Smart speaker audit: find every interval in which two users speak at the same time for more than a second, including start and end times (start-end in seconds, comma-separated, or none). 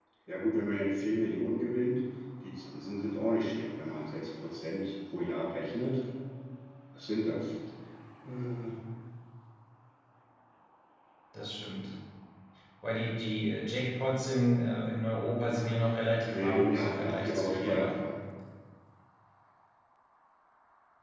16.3-17.9